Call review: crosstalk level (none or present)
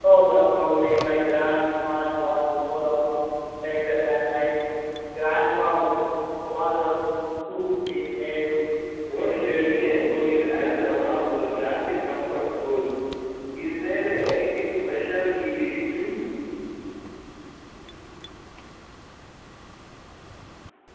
present